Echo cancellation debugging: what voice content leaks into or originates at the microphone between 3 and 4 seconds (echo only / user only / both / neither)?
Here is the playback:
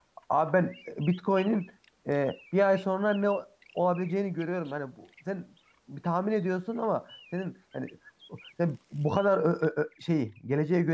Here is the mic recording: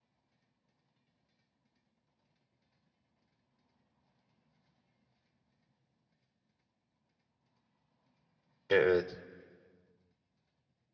neither